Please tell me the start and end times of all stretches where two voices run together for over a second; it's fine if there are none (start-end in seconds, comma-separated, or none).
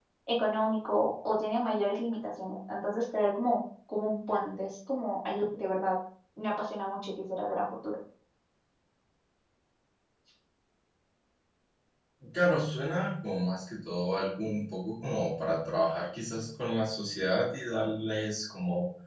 none